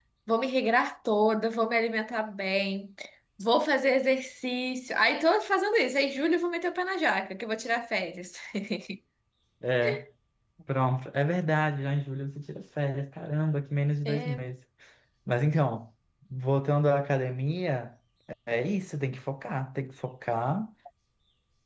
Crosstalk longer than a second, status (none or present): none